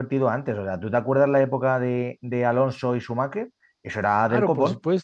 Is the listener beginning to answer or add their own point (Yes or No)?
Yes